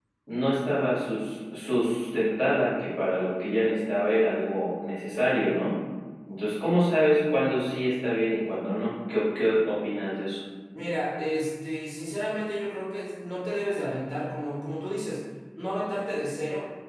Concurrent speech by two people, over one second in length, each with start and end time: none

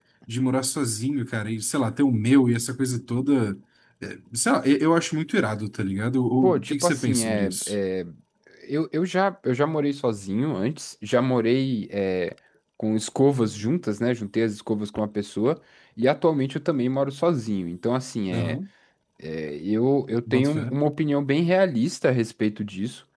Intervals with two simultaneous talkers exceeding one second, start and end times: 6.4-7.7

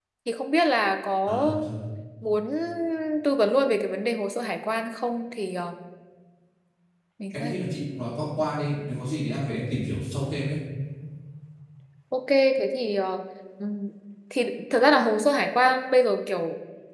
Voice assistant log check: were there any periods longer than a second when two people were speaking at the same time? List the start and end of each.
none

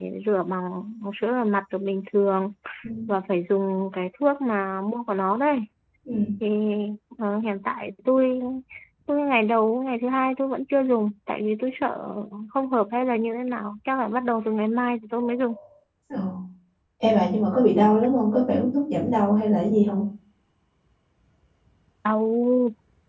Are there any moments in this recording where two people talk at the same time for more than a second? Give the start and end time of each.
none

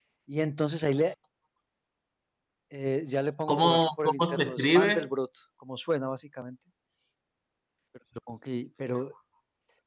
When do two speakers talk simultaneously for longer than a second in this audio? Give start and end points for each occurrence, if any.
3.5-5.0

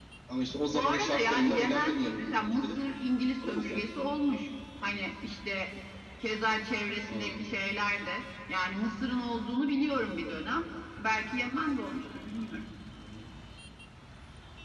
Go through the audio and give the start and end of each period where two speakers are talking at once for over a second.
0.7-2.8

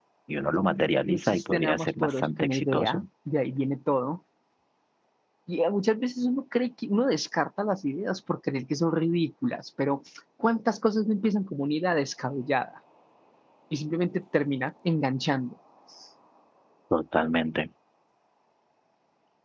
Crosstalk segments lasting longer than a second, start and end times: 1.1-3.0

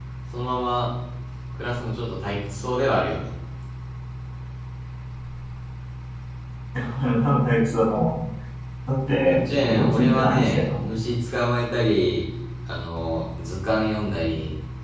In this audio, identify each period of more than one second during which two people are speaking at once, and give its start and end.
9.2-10.8

